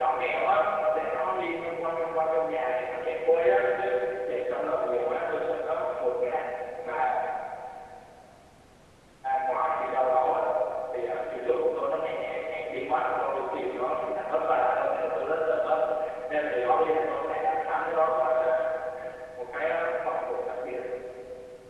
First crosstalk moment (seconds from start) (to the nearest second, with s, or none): none